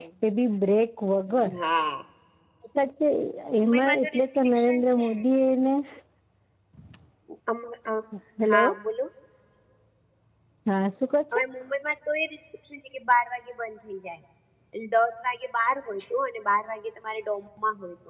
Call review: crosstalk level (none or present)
present